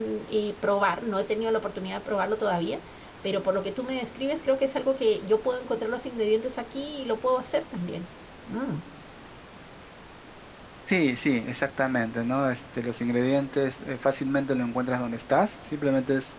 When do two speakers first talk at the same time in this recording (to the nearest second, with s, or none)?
none